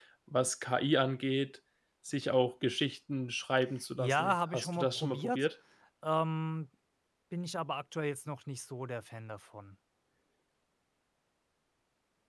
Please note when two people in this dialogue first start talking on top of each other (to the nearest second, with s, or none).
4 s